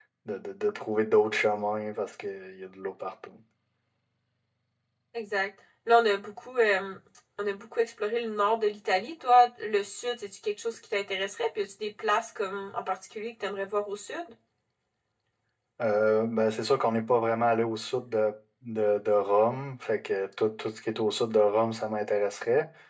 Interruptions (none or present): none